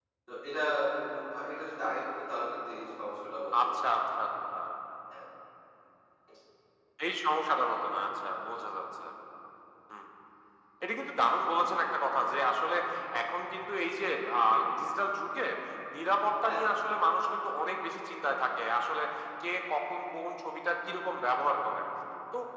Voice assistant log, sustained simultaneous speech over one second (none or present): none